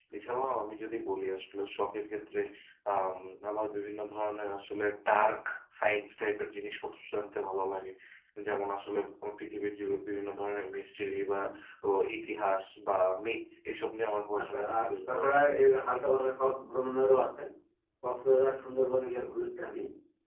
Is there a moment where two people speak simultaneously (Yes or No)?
Yes